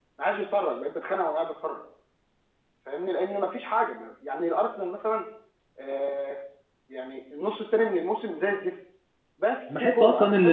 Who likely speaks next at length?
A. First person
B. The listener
B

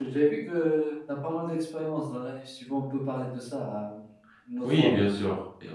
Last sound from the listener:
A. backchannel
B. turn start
B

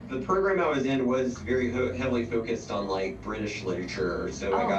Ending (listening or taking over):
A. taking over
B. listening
B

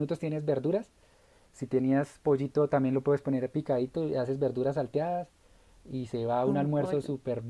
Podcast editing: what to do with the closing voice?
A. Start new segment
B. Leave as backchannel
B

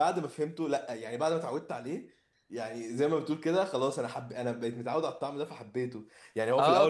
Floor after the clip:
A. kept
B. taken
B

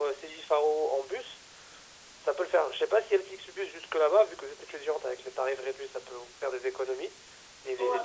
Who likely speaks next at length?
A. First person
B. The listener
A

